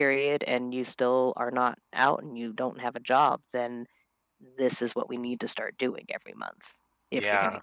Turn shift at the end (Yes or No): Yes